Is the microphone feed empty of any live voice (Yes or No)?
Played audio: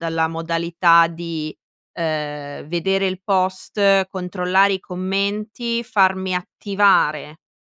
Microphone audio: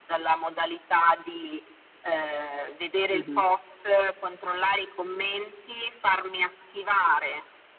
No